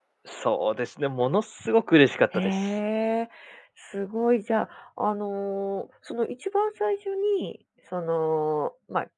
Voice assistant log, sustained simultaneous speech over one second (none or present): none